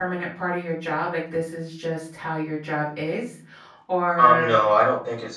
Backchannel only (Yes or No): No